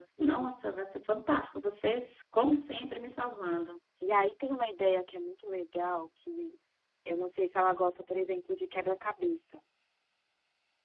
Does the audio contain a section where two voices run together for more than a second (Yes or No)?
No